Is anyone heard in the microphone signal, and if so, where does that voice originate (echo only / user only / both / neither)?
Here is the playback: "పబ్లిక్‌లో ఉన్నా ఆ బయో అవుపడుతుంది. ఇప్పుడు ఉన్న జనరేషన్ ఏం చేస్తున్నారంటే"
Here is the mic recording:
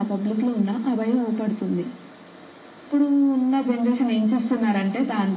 echo only